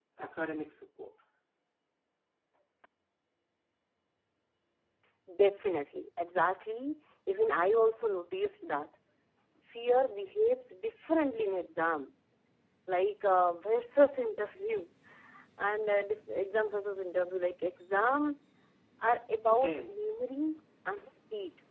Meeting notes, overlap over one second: none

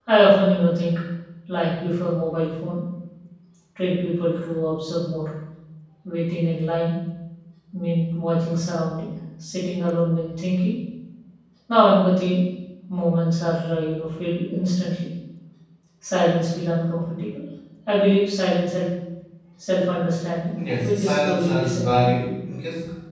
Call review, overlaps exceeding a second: present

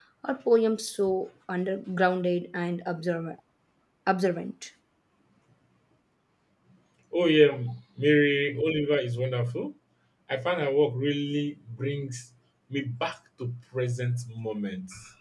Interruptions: none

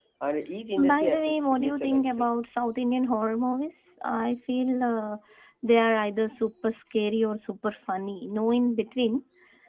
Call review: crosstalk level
present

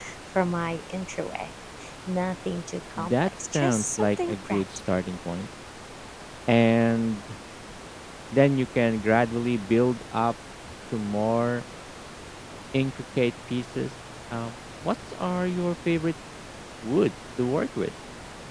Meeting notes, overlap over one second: present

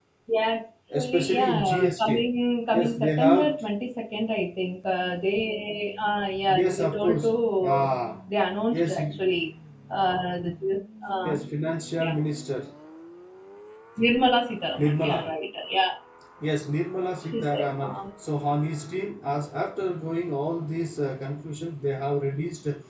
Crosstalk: present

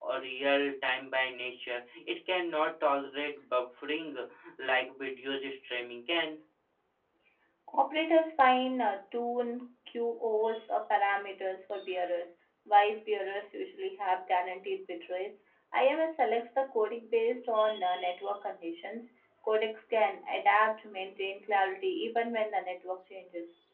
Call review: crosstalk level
none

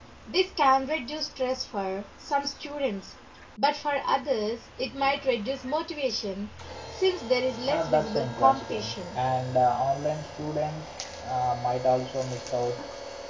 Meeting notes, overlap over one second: present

